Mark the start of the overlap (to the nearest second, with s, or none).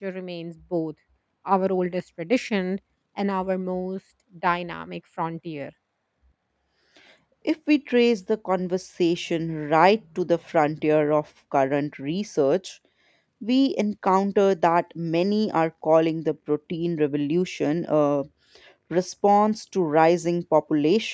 none